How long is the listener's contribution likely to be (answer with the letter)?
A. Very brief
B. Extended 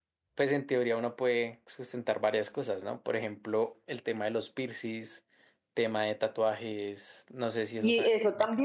B